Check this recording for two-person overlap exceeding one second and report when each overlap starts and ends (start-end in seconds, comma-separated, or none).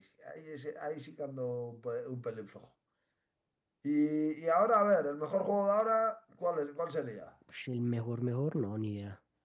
none